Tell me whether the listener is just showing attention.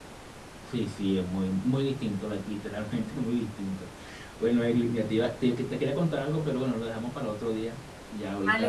No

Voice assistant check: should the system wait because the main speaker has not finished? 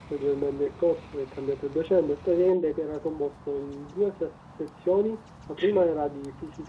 Yes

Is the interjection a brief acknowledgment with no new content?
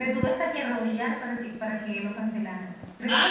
No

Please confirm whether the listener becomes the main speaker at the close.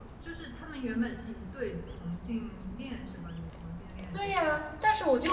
Yes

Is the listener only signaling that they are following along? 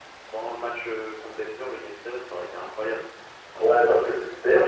No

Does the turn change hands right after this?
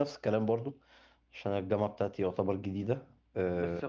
Yes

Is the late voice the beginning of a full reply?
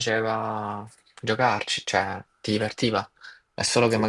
No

